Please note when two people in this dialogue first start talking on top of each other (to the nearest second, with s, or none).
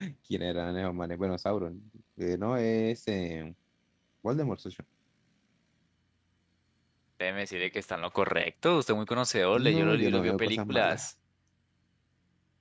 10 s